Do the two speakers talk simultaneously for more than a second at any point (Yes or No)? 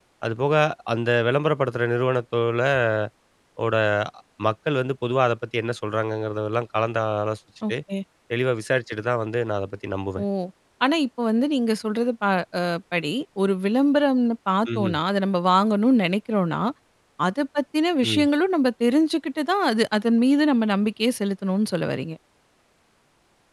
No